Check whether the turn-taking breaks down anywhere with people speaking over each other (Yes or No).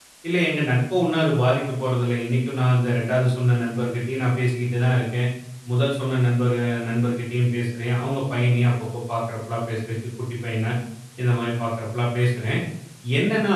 No